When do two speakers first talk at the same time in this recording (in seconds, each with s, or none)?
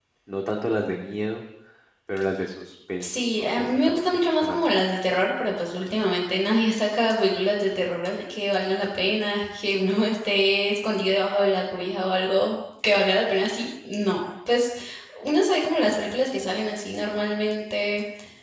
3.0 s